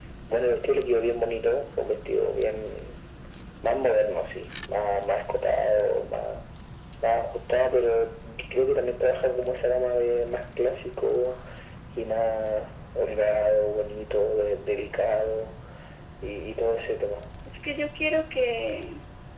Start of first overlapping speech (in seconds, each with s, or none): none